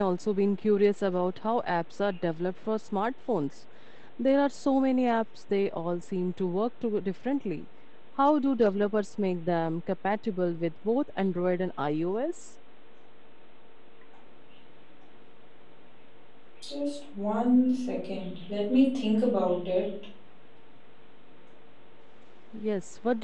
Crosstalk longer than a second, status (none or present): none